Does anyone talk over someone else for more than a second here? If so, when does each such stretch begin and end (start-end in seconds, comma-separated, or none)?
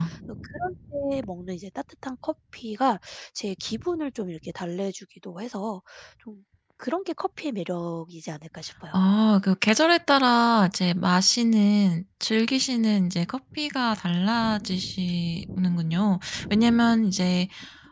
none